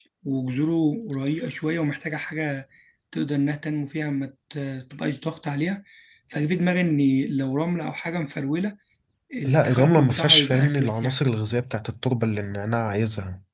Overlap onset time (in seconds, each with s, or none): 9.4 s